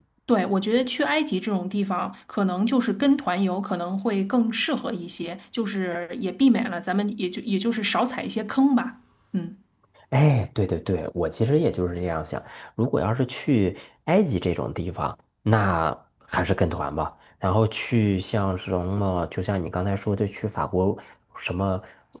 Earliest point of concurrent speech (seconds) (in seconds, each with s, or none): none